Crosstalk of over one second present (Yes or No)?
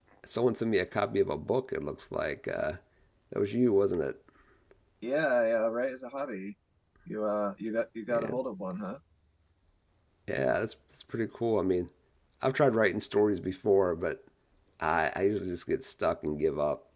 No